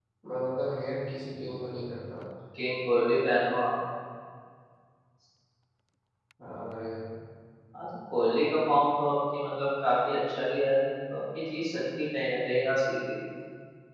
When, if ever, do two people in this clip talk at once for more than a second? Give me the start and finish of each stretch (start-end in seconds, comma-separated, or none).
none